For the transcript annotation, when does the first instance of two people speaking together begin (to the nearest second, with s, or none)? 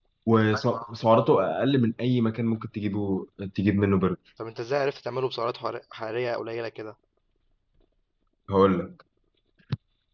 none